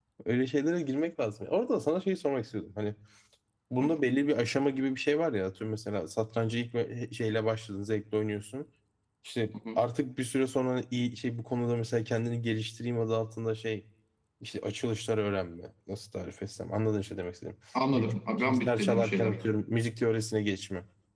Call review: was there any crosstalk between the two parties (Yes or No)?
Yes